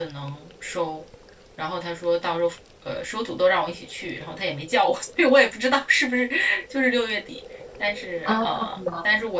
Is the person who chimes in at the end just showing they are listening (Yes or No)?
Yes